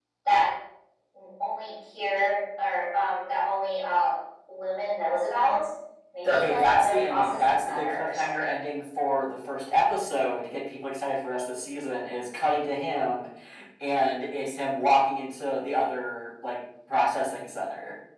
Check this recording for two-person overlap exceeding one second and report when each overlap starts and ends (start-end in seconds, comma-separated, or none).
6.2-8.7